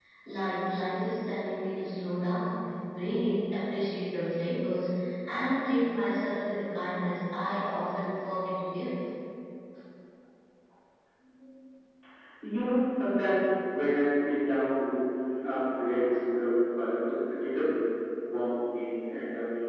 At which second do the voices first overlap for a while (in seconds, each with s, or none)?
none